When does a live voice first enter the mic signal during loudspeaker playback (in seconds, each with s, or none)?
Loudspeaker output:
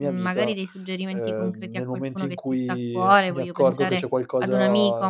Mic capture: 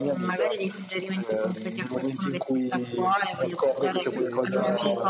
3.9 s